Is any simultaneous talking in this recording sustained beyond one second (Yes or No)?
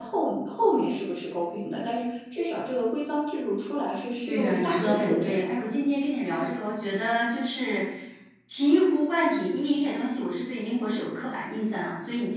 Yes